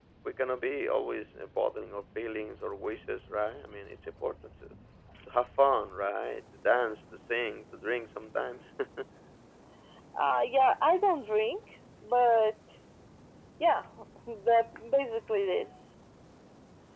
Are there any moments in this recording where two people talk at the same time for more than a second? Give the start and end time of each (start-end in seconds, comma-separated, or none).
none